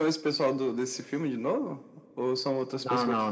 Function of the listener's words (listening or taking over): taking over